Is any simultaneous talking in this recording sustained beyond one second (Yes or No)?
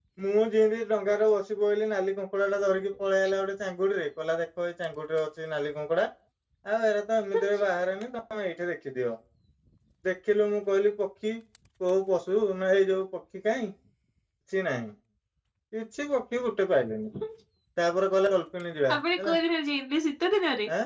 No